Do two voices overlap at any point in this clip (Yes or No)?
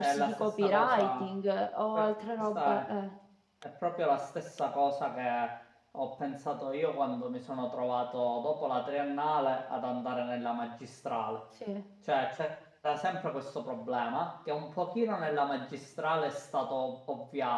Yes